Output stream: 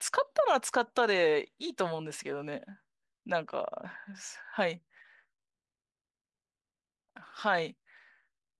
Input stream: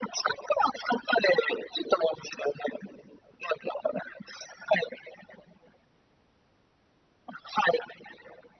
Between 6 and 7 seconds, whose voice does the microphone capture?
neither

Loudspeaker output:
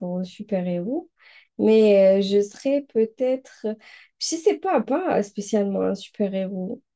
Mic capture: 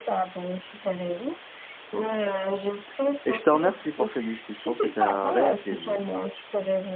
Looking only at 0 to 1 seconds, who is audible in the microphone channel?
echo only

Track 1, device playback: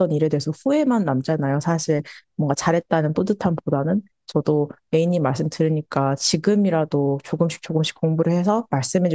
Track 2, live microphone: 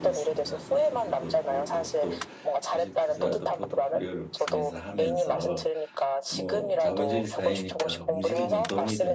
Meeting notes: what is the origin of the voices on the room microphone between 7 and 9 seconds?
both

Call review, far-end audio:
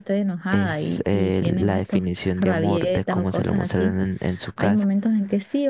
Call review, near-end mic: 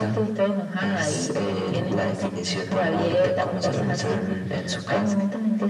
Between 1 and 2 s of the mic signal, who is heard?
echo only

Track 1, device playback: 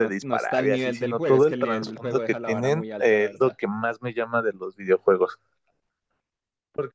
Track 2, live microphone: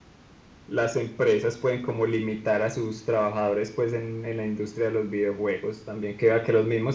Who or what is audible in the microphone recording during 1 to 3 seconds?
user only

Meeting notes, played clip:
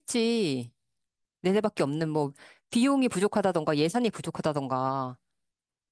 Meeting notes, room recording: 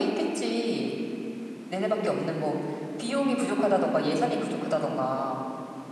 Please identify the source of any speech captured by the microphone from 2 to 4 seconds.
echo only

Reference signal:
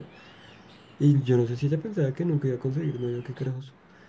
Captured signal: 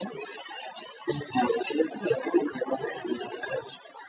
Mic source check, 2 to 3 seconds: echo only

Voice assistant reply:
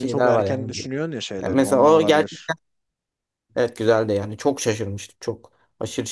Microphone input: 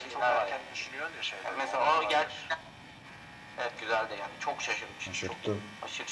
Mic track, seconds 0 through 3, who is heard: echo only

